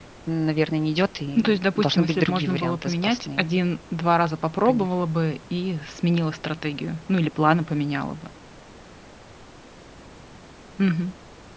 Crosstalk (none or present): present